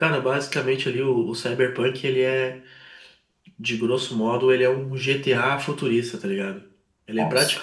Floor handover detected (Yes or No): No